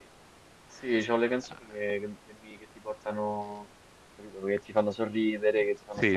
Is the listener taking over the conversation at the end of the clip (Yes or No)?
Yes